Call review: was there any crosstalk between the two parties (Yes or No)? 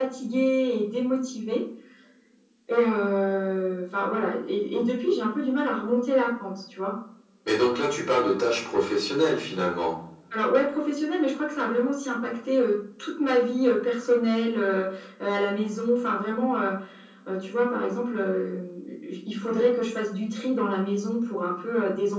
No